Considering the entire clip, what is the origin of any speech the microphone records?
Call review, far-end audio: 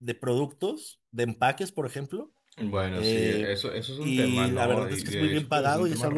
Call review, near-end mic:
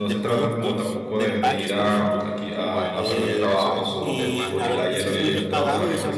both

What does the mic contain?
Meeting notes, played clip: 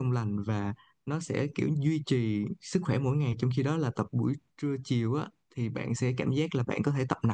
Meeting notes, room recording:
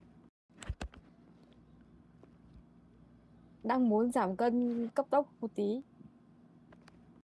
user only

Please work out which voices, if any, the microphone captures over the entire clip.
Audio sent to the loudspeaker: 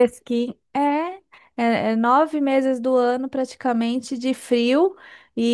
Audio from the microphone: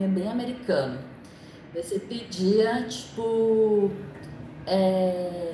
user only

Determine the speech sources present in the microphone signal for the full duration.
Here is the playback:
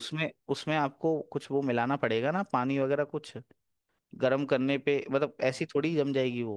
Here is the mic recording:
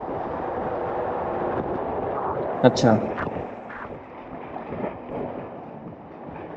user only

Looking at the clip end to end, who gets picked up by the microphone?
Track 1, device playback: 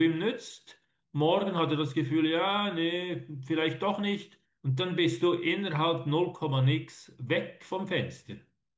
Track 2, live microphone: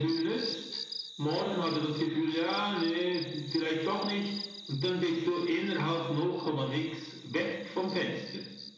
echo only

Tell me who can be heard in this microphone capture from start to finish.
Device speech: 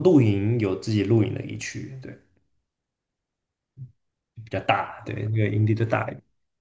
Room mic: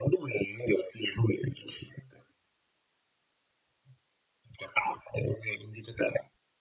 echo only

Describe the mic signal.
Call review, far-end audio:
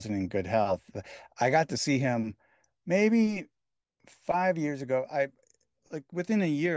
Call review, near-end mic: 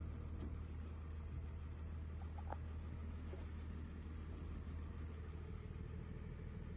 neither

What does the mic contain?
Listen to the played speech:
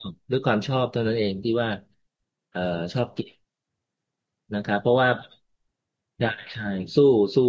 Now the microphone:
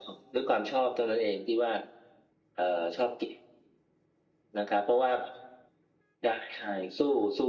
echo only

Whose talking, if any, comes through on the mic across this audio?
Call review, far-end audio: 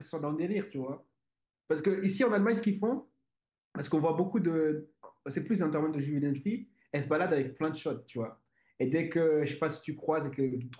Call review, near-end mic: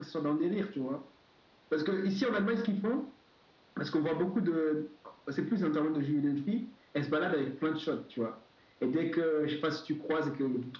echo only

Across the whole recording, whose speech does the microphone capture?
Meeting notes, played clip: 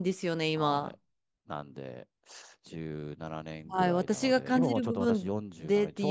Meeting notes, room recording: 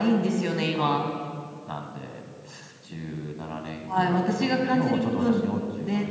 echo only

